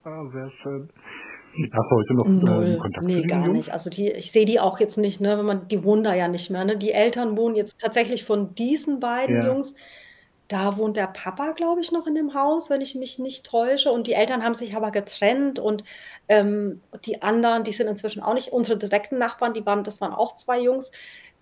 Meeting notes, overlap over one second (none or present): present